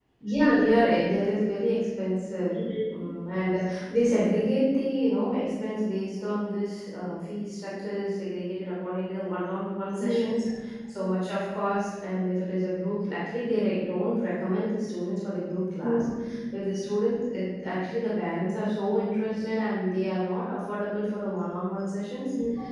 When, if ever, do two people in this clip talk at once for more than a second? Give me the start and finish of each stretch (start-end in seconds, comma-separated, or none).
none